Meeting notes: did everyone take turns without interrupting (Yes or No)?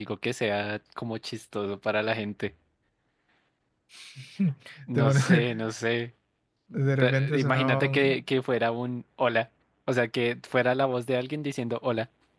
No